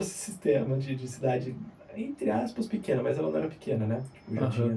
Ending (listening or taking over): taking over